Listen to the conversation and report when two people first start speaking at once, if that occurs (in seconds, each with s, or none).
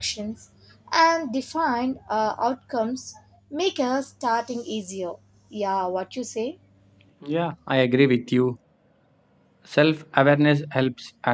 none